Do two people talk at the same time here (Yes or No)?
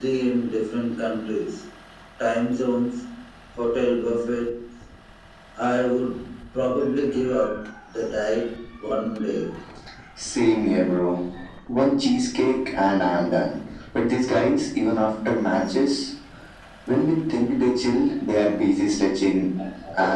No